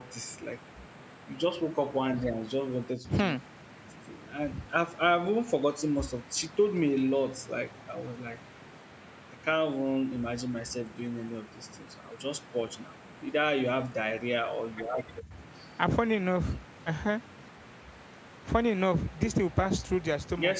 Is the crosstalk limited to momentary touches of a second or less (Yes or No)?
Yes